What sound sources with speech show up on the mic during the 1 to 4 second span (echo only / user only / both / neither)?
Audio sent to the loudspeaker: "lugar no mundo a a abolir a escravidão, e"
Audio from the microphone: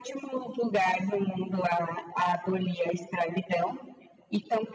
echo only